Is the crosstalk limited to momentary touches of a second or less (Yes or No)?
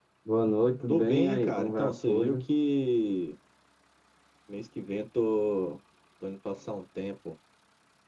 No